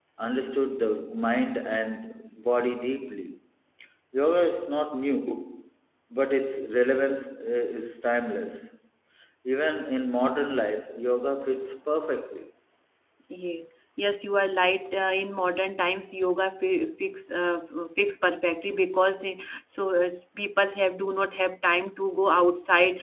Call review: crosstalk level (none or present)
none